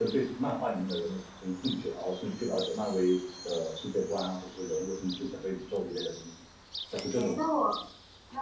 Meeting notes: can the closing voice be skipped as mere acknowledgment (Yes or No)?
No